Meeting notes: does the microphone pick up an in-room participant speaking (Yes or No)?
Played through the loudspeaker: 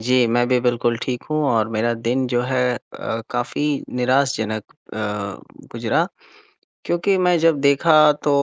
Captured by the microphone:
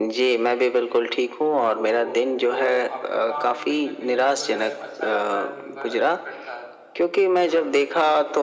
Yes